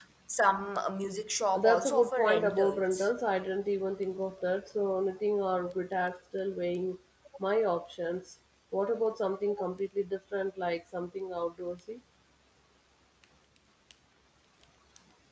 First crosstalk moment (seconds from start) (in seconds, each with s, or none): 1.5 s